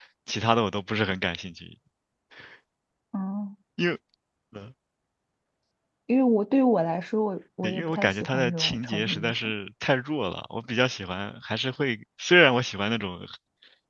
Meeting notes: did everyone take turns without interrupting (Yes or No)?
No